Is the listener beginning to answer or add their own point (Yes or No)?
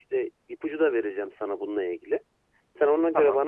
No